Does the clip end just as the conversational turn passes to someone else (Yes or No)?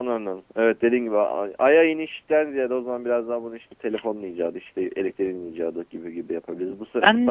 No